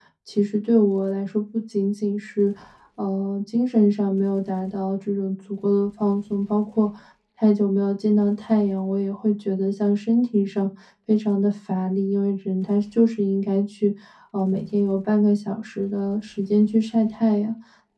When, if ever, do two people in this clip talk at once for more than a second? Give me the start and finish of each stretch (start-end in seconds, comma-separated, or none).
none